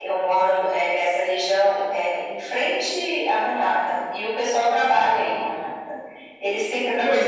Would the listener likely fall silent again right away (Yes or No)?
Yes